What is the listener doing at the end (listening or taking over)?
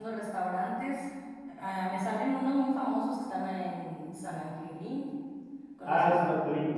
taking over